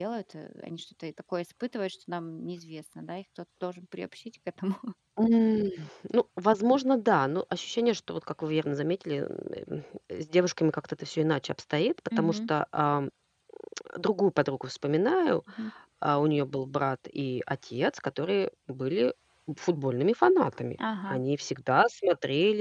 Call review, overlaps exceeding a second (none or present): none